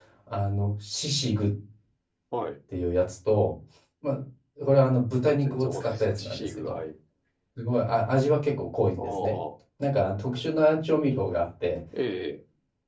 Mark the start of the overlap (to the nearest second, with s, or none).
5 s